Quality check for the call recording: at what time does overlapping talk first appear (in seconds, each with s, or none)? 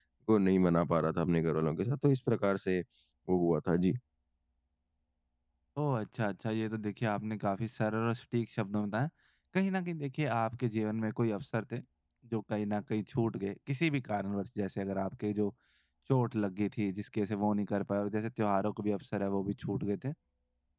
none